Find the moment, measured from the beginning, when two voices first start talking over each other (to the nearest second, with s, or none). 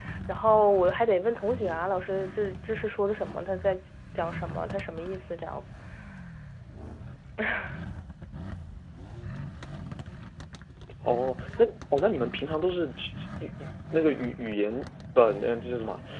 none